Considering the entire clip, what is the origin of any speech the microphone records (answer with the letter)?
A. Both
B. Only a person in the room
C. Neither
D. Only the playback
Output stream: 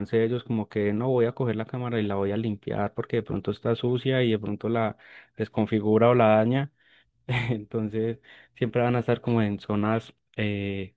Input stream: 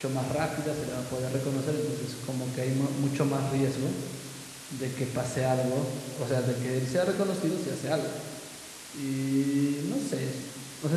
B